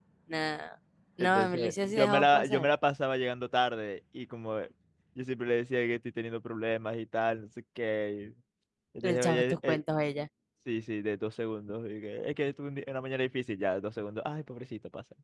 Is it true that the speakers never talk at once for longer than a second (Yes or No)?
No